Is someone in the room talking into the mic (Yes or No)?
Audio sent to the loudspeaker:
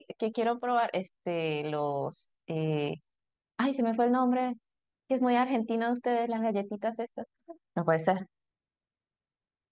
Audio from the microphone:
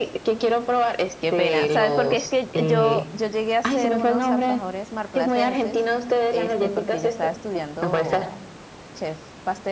Yes